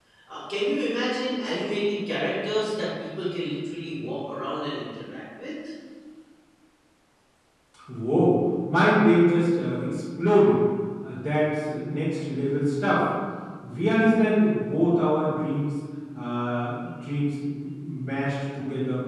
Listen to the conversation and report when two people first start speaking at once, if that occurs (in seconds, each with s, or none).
none